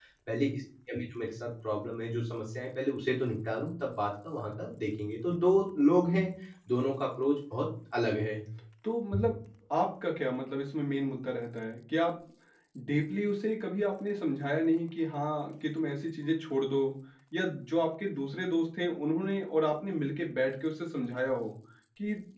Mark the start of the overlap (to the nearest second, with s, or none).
none